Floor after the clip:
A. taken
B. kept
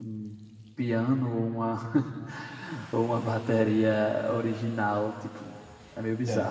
A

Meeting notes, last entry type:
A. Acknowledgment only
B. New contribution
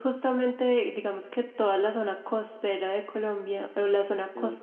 A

